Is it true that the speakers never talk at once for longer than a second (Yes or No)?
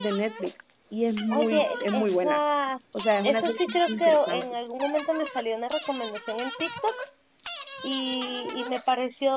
No